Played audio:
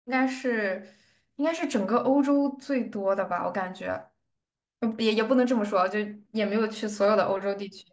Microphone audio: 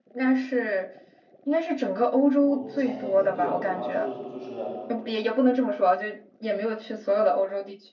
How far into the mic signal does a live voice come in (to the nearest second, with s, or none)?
2 s